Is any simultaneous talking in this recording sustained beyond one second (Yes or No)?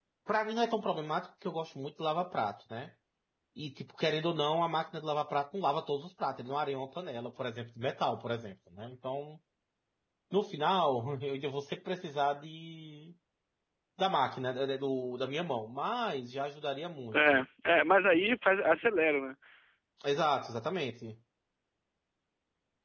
No